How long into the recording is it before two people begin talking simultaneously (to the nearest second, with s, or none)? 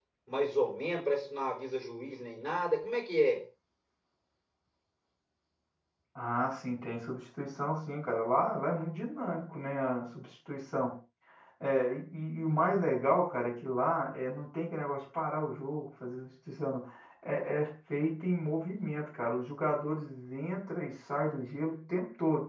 none